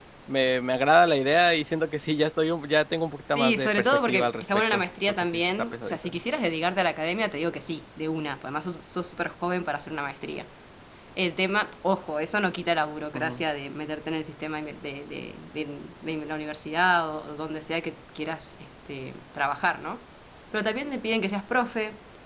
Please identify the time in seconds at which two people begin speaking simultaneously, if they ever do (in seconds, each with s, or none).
3.3 s